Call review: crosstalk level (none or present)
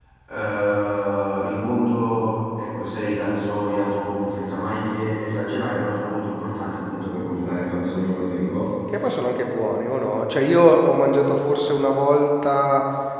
none